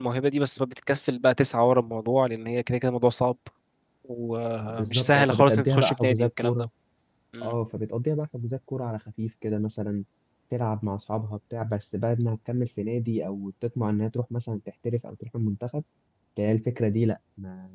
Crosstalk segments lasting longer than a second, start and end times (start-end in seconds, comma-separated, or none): 4.7-6.7